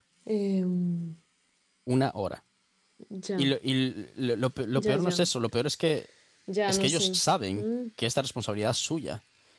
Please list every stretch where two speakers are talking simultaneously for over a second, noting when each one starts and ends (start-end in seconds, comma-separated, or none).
none